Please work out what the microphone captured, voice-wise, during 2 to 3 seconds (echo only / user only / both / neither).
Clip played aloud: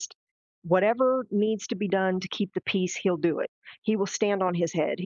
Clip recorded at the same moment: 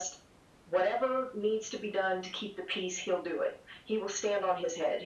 echo only